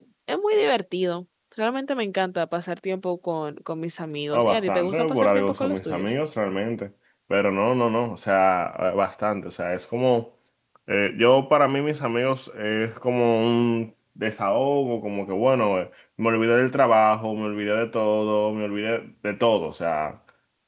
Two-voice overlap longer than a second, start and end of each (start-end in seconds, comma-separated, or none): 4.3-6.1